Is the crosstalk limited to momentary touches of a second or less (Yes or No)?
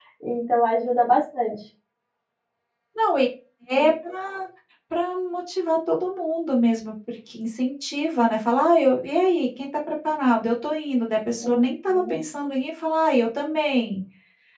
Yes